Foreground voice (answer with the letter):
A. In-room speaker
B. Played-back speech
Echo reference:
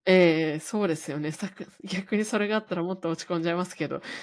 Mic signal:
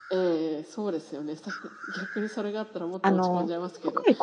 A